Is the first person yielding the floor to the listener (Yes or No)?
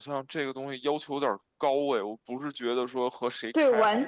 Yes